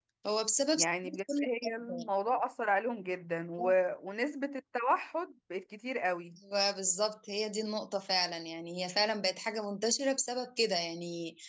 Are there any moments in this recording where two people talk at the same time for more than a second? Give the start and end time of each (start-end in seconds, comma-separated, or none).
0.8-2.1